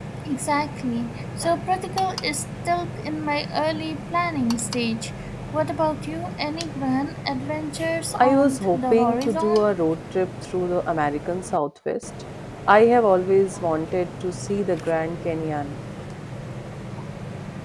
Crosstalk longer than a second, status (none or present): present